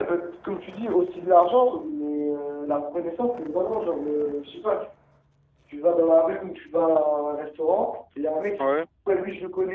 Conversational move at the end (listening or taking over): listening